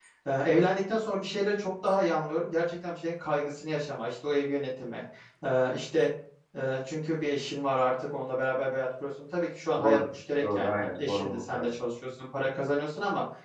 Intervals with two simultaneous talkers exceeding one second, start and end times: 10.4-11.6

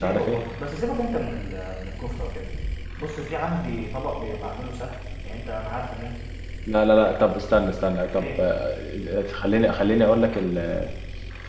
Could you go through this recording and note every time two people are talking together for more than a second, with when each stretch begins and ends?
none

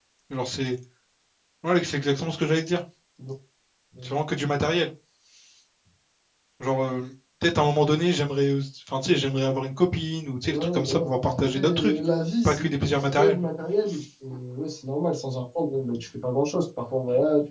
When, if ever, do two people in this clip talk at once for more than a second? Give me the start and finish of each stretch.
10.5-12.0

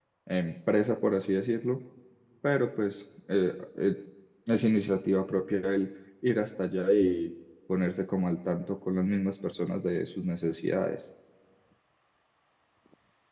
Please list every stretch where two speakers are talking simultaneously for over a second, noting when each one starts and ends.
none

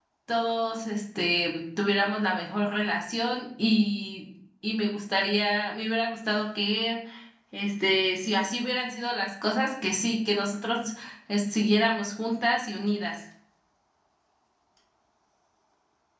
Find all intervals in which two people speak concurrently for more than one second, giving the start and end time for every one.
none

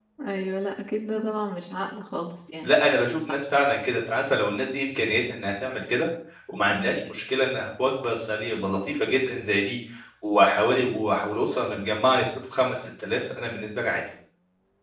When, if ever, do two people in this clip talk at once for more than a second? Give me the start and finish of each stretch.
none

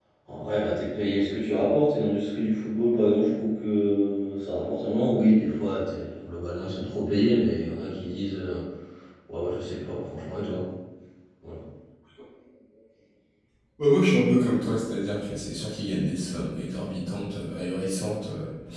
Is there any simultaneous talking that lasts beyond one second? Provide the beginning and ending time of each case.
none

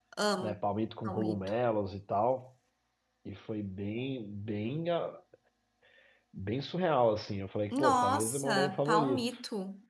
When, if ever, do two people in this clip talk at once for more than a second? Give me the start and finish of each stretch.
7.7-9.3

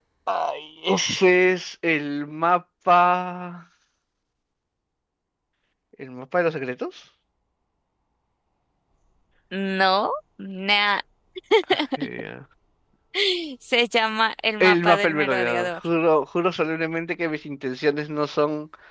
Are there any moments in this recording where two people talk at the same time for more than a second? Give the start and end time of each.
14.6-15.8

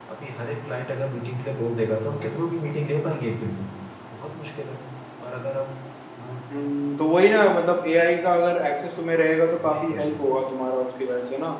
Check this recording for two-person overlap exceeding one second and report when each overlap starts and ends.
none

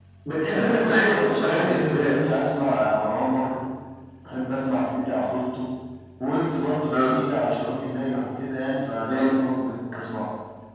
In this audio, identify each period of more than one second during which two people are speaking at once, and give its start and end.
0.5-2.2

